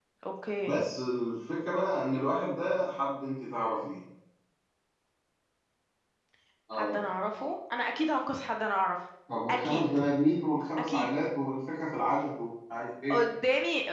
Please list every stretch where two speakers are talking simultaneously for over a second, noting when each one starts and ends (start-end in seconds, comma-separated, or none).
none